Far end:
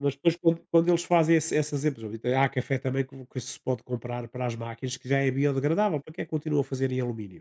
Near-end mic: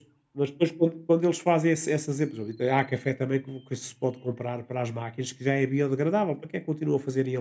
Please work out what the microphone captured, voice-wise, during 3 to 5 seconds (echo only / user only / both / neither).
echo only